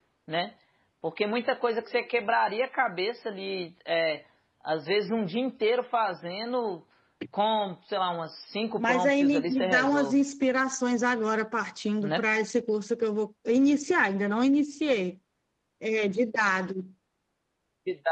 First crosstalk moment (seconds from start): 8.8 s

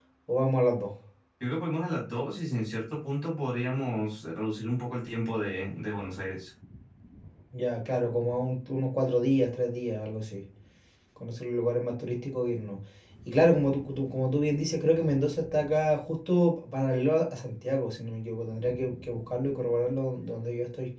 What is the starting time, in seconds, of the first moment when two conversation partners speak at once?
none

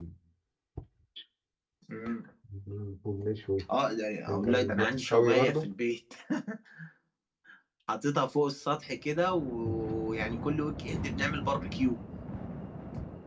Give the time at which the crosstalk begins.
4.3 s

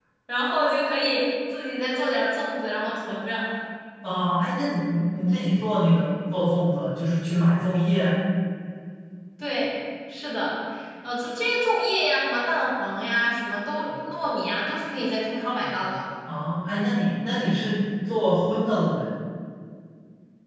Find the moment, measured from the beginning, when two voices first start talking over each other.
none

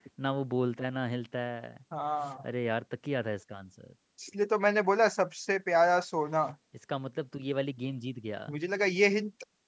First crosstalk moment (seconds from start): none

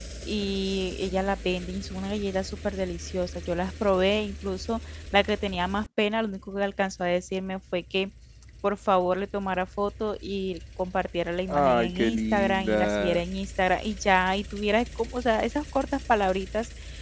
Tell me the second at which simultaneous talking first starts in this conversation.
11.5 s

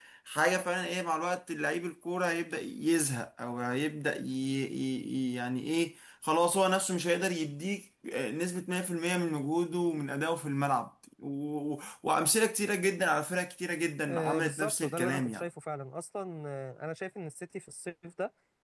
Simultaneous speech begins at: 14.1 s

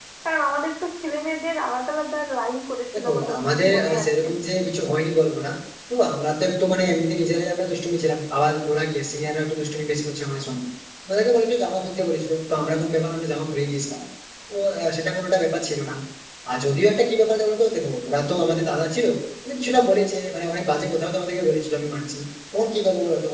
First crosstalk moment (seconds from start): 2.9 s

